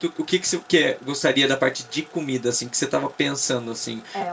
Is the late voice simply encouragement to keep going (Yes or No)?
No